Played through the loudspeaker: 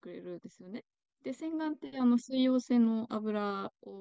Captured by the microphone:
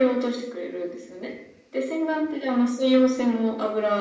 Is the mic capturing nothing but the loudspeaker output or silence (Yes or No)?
Yes